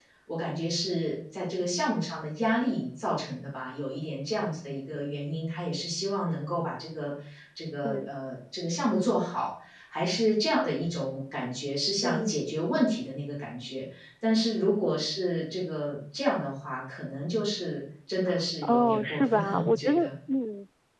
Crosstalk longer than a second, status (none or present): present